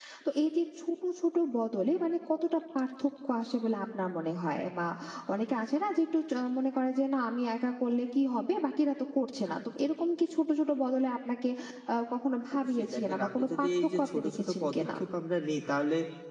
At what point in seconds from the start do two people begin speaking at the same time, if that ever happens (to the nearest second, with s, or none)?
13 s